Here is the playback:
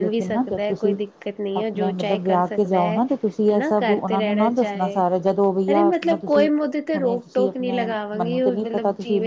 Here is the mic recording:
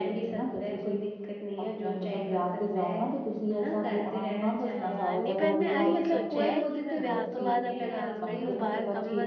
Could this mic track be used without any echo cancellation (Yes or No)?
No